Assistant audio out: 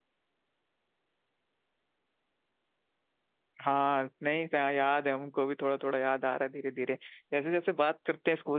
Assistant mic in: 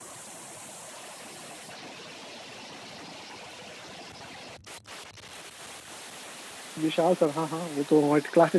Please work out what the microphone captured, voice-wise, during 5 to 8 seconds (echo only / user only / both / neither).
user only